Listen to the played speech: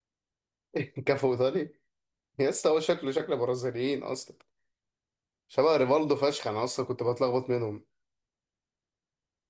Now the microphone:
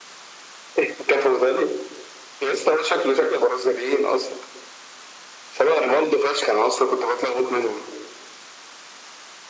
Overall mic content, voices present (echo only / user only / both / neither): echo only